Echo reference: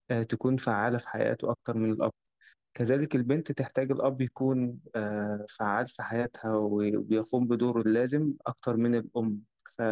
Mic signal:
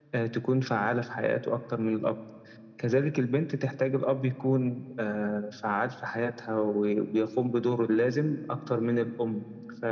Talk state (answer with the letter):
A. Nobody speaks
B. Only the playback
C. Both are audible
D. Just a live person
B